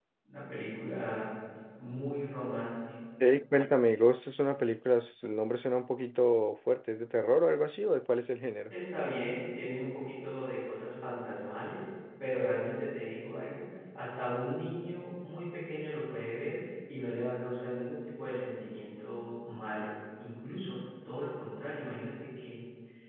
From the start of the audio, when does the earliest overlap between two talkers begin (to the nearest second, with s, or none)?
none